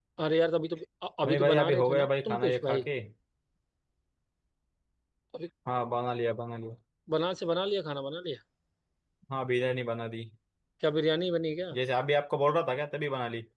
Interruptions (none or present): present